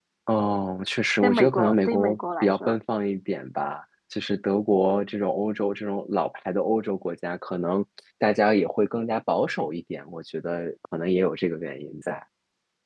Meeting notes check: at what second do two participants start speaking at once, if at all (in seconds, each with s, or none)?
1.2 s